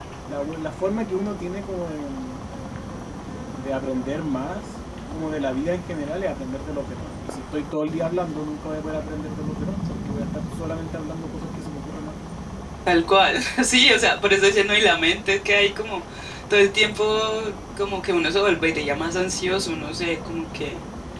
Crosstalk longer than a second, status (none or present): none